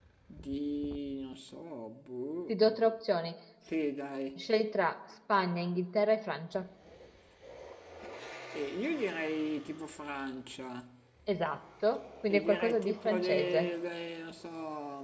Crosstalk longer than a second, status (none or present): present